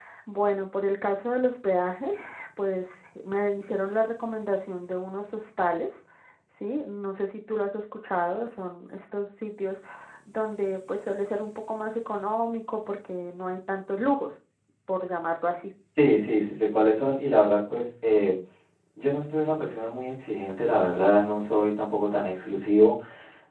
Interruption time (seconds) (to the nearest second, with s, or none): none